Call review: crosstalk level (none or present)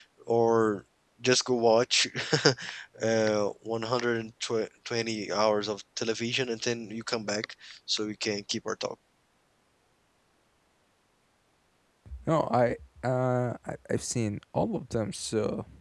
none